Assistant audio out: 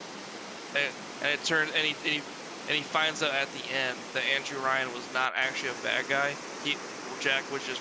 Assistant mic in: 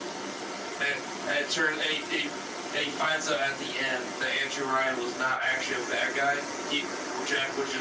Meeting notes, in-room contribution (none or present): none